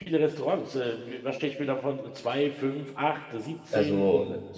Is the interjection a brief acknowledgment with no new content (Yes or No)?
No